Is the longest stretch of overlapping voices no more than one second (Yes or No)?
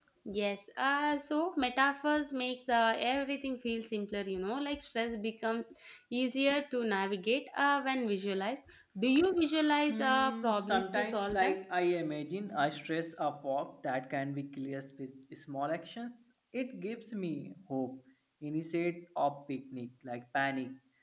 No